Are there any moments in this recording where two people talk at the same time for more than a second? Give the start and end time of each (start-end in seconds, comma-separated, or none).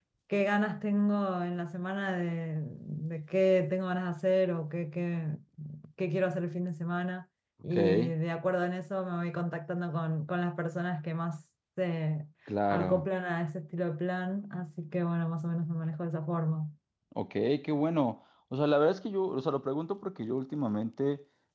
none